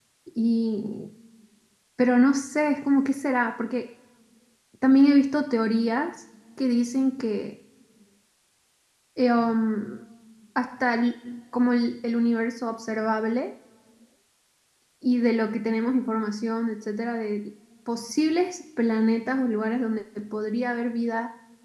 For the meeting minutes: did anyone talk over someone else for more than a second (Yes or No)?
No